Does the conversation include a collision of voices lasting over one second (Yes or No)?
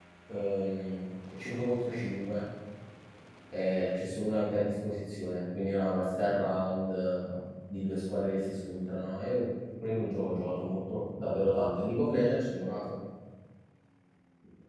No